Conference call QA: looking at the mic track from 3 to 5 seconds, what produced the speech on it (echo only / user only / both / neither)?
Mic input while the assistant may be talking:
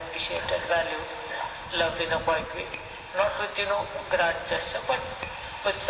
echo only